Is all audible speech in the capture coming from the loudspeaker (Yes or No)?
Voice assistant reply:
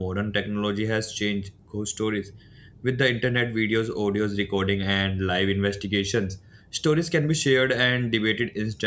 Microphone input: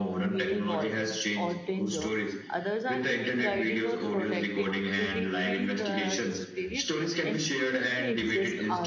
No